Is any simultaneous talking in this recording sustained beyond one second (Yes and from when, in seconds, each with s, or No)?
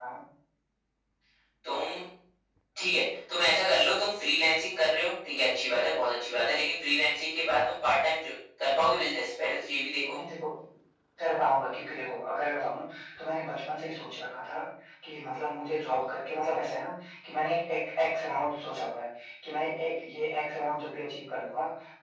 No